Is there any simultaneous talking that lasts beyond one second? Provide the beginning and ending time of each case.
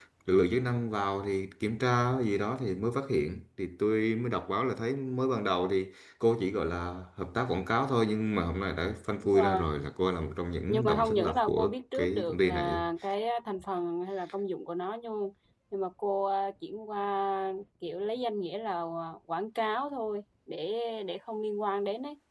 10.7-12.8

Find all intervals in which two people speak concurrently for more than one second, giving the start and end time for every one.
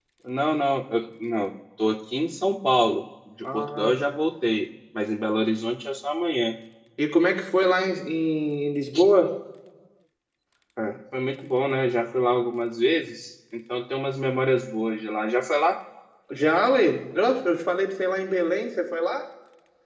none

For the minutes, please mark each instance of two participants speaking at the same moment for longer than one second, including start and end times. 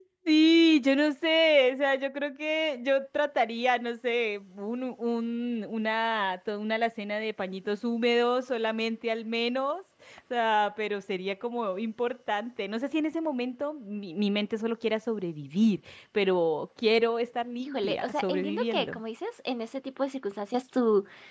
17.7-19.0

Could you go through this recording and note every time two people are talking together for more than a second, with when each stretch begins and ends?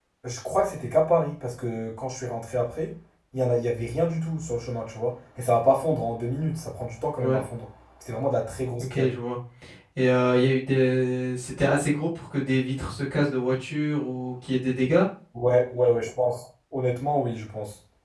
none

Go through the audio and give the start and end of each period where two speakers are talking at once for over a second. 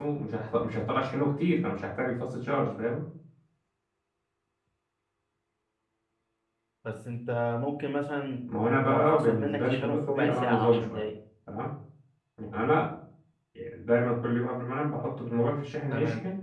8.8-11.0

